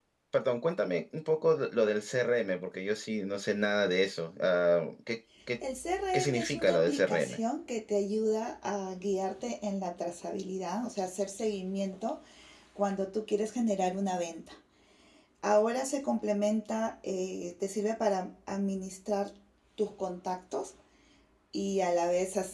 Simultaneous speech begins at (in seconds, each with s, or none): 6.1 s